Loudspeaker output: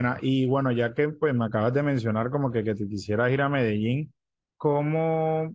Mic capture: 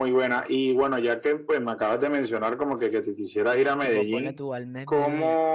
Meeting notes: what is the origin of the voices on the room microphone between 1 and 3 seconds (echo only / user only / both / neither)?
echo only